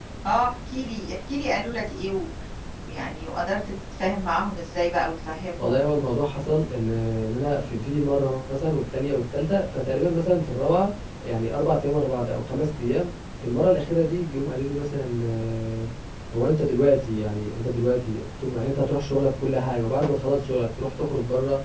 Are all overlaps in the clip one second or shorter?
Yes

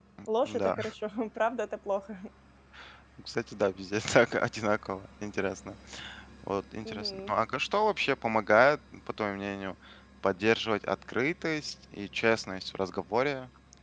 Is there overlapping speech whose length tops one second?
No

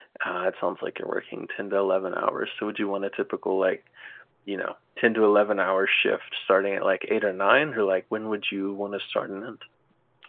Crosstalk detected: No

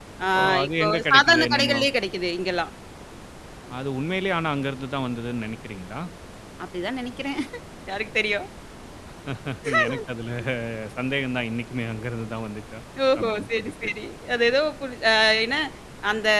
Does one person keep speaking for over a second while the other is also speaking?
Yes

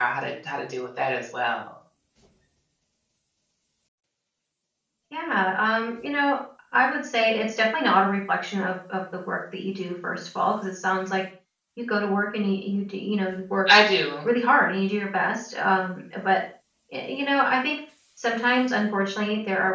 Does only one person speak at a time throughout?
Yes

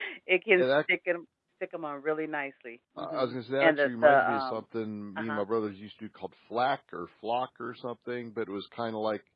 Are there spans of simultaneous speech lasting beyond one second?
Yes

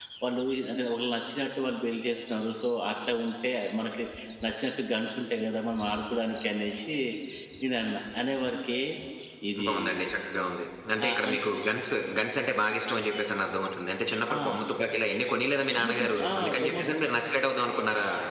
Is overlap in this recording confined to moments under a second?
No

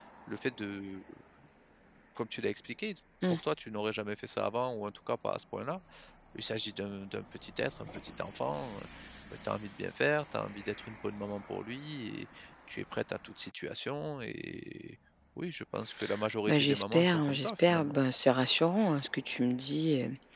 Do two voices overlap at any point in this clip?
Yes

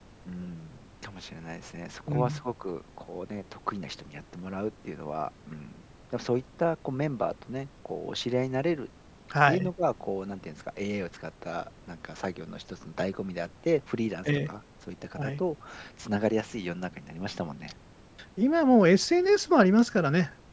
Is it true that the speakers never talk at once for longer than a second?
Yes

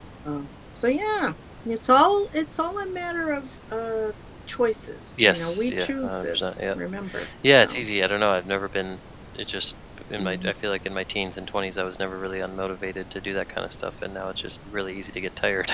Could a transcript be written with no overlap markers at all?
No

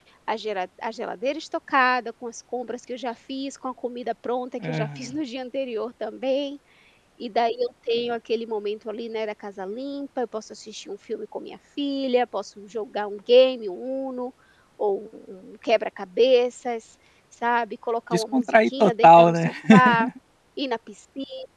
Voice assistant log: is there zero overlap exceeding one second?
No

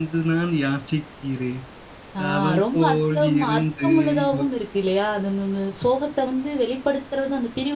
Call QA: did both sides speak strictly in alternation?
No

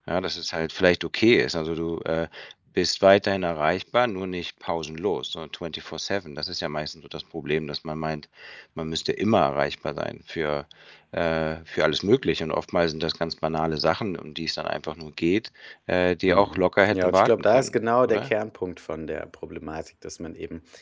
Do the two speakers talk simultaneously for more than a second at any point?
Yes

